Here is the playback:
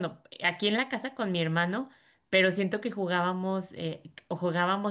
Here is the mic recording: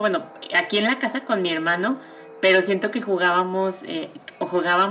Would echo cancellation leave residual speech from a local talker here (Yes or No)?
No